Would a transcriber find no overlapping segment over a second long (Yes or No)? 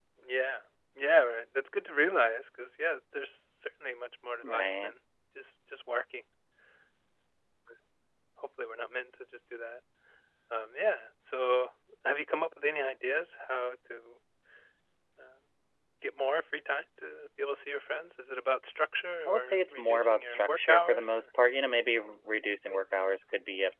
No